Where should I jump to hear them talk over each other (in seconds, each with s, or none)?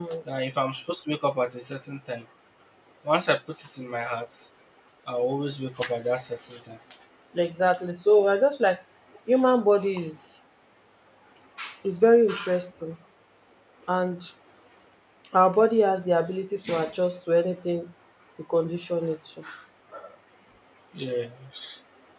none